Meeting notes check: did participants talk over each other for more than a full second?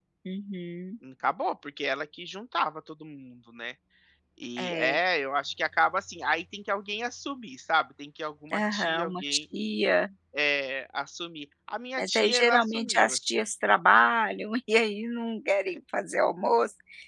Yes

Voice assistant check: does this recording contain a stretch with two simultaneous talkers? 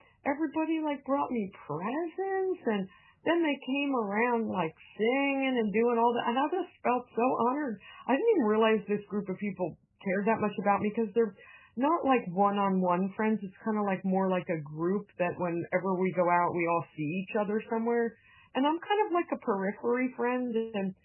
No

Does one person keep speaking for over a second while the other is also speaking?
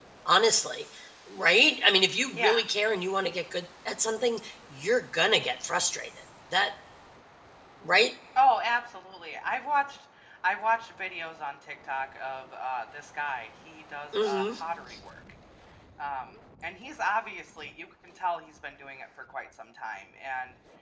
No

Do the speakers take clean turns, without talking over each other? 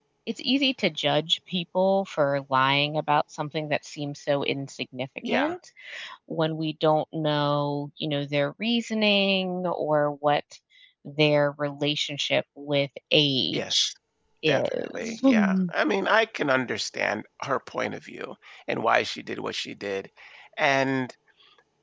No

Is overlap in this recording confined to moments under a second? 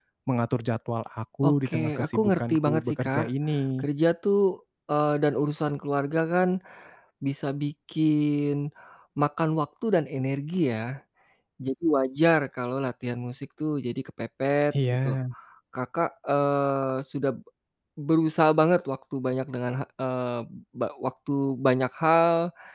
No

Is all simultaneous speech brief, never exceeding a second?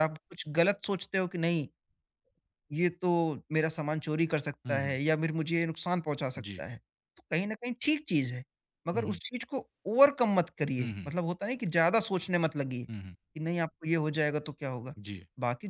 Yes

